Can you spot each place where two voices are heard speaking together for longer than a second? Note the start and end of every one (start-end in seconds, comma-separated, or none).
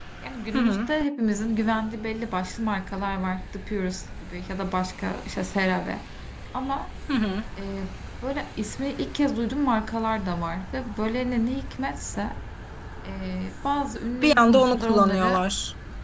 14.2-15.4